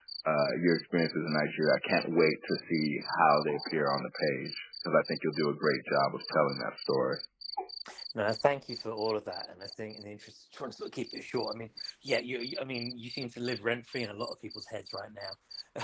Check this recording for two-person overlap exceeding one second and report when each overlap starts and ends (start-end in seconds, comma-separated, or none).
none